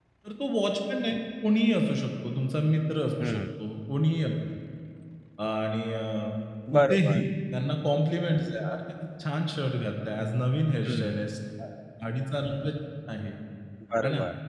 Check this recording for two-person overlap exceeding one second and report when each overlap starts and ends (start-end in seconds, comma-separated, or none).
none